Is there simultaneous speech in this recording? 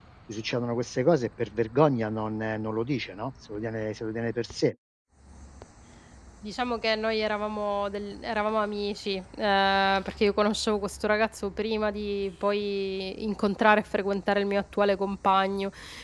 No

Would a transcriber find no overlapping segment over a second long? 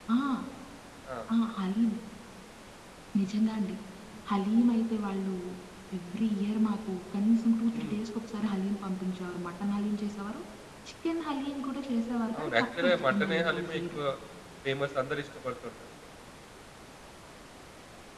No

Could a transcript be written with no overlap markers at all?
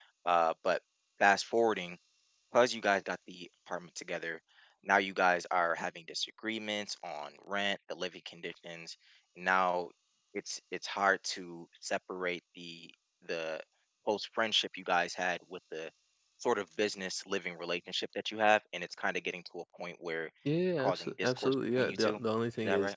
No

